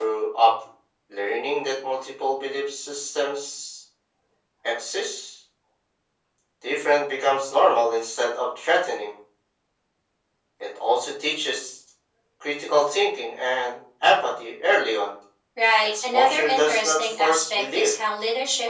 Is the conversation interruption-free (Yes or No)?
No